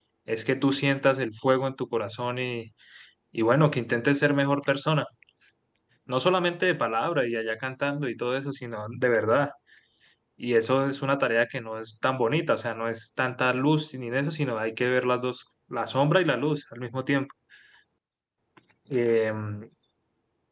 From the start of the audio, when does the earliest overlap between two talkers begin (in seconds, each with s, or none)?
none